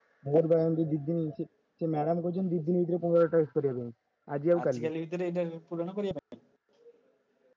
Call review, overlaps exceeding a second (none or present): none